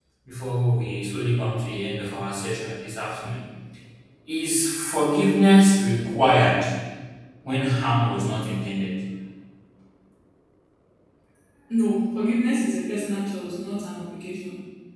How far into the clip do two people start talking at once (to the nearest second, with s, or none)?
none